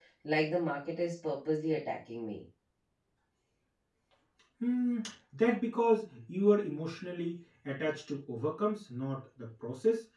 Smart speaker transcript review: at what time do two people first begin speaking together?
none

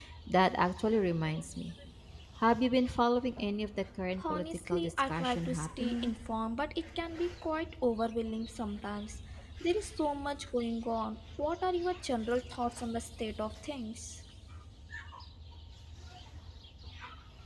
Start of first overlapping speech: 4.2 s

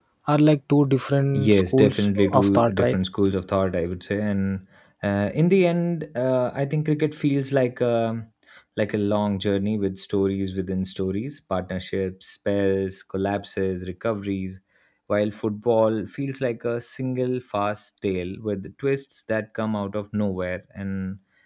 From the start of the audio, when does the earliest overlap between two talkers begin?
1.3 s

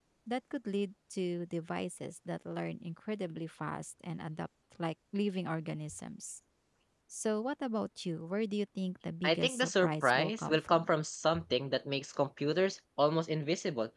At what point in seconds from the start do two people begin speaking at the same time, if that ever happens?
9.2 s

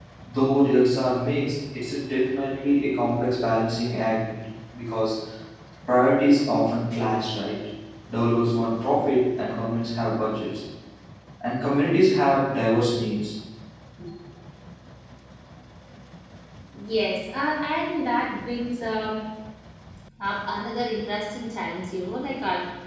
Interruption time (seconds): none

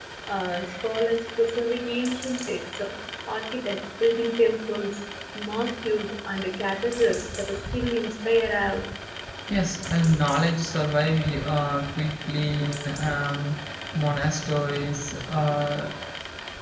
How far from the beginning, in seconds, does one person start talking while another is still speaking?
none

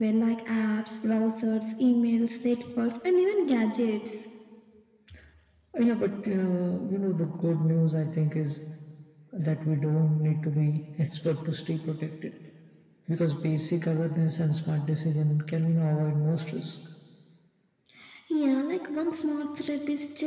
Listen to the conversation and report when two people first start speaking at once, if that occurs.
none

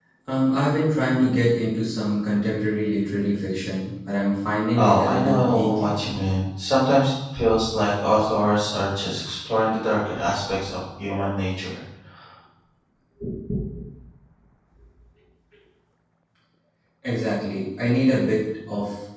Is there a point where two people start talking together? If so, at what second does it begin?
4.7 s

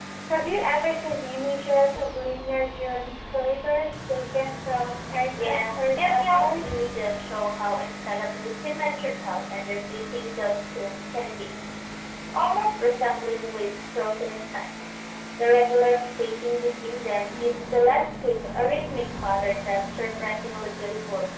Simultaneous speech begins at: 5.4 s

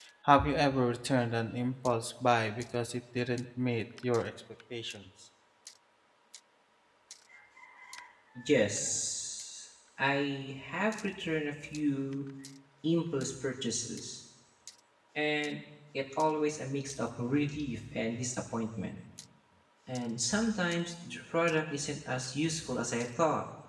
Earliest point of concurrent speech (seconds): none

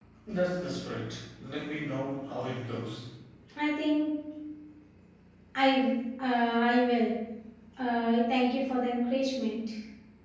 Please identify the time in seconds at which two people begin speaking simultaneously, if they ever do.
none

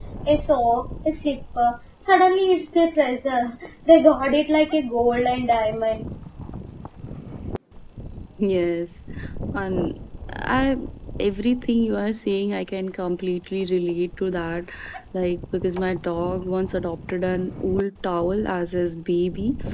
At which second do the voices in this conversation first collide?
none

